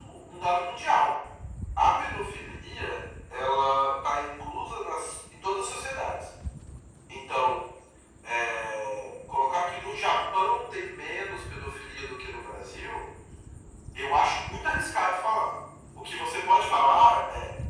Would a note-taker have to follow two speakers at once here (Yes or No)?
No